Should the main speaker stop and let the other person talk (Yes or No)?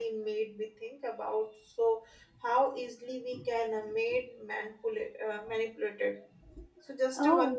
No